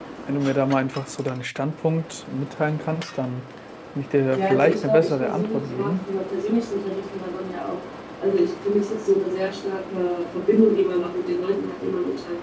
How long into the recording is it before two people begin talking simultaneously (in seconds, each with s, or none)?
4.3 s